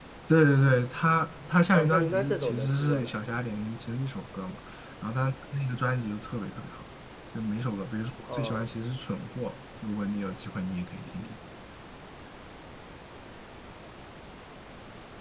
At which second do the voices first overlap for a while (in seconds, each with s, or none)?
1.7 s